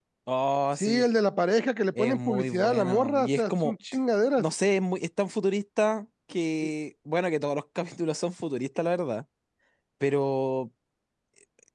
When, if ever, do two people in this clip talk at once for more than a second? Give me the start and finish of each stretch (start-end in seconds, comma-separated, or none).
1.9-3.7